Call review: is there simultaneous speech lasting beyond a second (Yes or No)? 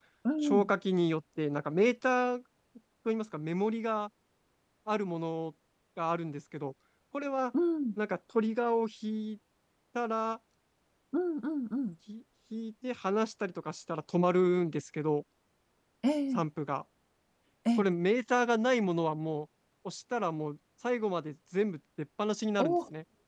No